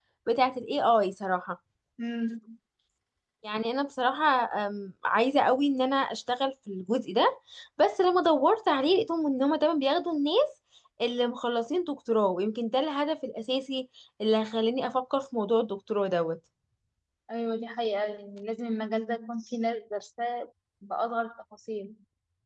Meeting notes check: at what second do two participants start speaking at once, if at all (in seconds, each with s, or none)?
none